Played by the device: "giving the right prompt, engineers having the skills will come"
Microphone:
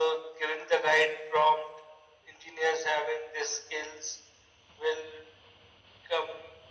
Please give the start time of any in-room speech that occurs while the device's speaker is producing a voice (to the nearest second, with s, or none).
none